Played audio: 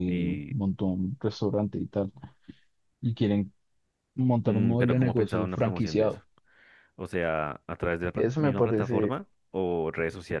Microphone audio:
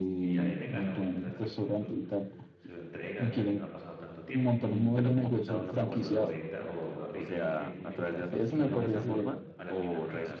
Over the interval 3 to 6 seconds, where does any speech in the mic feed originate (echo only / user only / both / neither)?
both